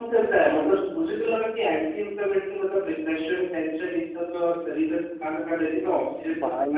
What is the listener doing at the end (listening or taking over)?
listening